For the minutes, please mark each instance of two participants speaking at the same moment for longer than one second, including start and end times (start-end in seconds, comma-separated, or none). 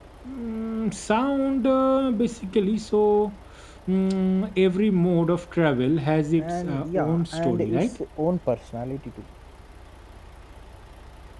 6.4-7.9